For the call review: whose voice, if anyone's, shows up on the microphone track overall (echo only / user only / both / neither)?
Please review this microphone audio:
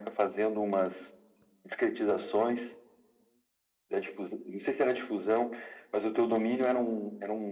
echo only